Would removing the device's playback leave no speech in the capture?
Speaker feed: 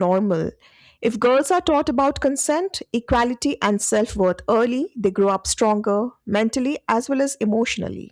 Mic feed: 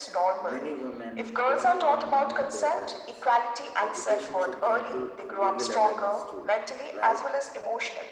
No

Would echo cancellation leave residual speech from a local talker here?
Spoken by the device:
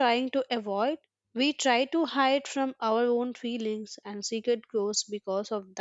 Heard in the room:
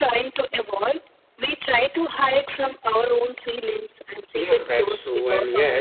Yes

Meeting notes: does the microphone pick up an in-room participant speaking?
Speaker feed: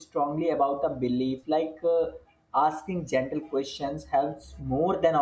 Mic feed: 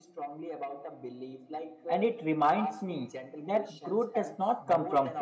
Yes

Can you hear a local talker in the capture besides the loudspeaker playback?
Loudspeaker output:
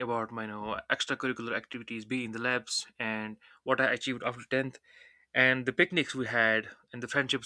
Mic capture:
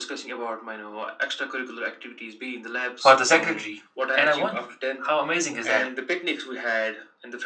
Yes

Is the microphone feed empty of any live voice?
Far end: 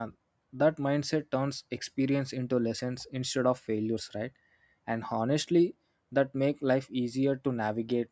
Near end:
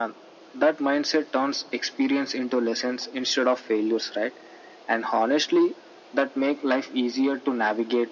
Yes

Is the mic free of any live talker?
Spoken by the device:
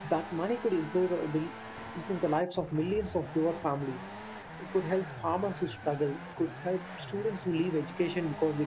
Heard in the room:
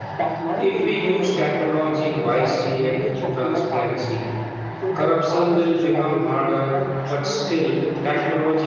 No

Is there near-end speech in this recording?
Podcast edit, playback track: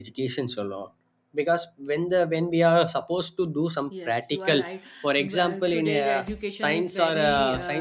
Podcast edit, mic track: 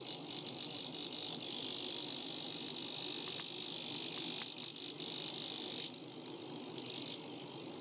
No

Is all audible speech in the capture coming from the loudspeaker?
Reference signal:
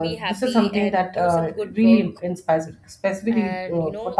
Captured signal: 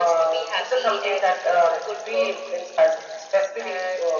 Yes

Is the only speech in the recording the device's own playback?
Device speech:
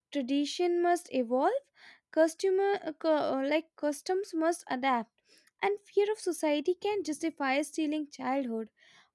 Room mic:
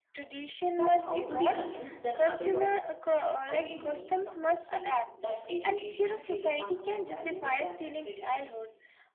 No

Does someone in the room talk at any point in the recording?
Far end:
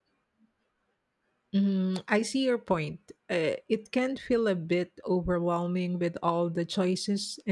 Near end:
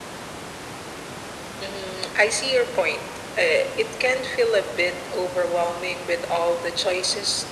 No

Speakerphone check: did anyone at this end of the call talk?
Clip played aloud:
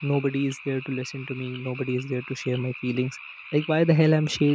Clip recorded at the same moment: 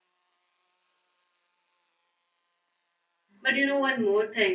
Yes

